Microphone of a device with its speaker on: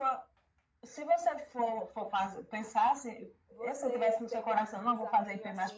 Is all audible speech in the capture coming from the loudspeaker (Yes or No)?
No